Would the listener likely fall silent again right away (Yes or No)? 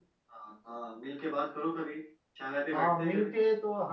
No